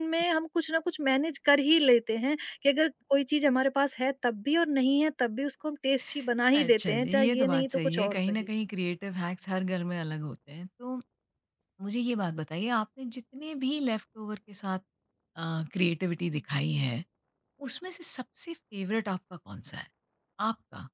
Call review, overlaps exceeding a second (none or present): present